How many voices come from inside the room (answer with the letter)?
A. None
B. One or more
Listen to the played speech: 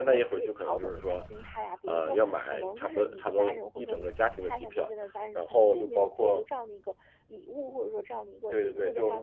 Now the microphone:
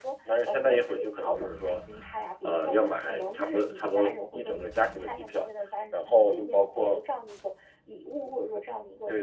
A